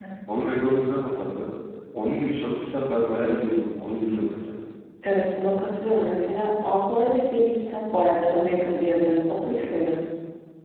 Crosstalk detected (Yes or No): No